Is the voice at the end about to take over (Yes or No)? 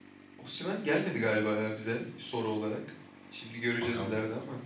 No